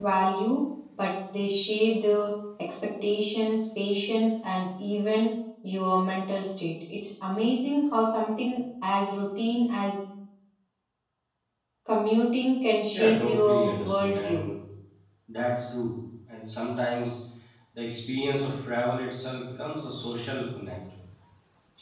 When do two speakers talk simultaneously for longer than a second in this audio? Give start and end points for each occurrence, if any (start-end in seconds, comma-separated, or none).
12.9-14.4